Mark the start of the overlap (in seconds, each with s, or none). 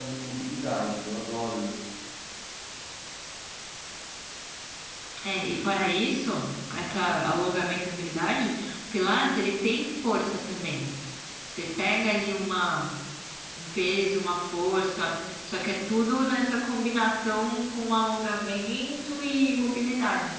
none